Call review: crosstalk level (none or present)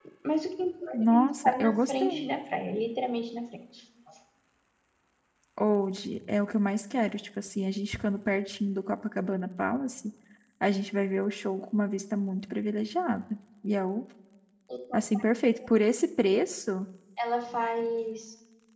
present